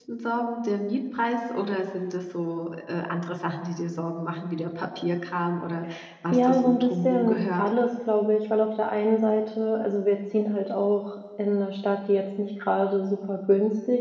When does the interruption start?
6.3 s

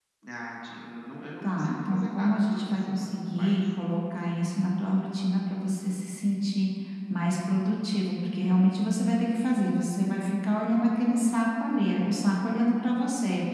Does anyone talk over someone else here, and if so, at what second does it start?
1.4 s

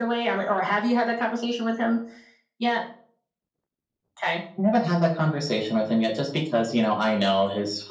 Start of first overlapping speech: none

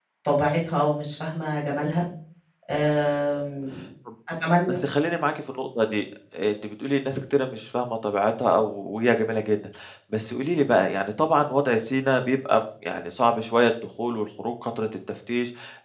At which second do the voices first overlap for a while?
none

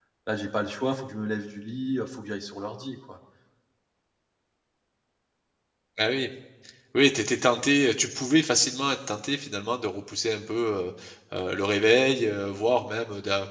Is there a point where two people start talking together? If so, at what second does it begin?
none

